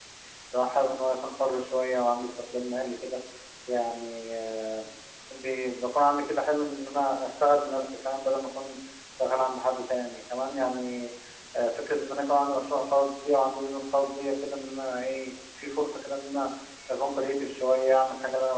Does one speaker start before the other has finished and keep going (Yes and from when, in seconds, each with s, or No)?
No